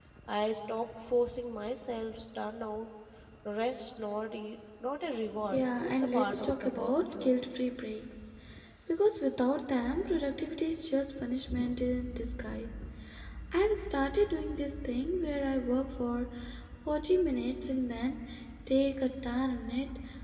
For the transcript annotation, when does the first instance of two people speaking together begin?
5.5 s

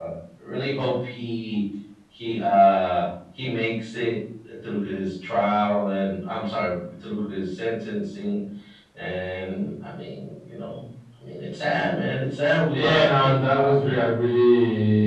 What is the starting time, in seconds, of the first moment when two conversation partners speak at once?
12.7 s

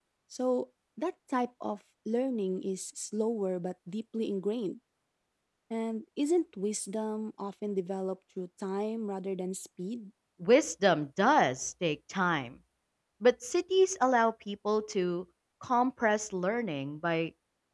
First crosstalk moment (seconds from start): none

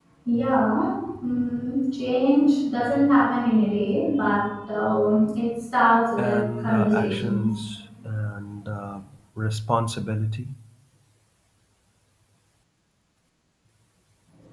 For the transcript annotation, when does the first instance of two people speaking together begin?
6.2 s

